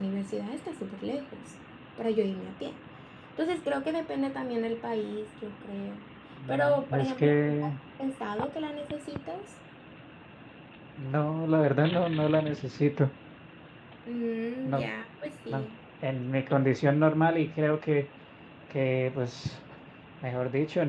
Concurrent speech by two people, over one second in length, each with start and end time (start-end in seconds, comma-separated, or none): 6.5-7.7